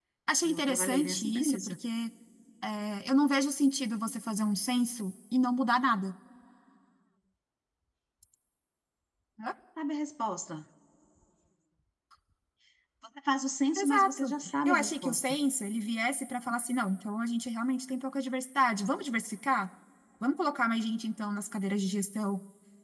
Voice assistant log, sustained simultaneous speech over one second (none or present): present